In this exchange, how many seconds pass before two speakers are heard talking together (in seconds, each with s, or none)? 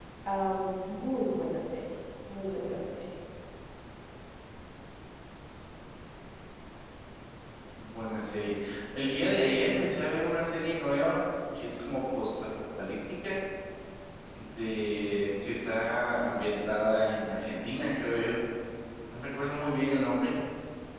none